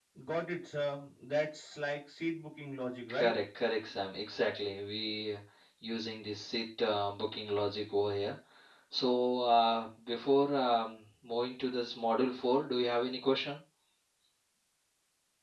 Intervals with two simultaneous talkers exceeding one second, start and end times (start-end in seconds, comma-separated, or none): none